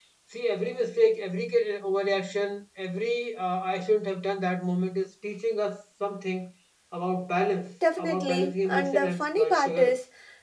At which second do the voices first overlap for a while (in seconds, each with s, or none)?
7.8 s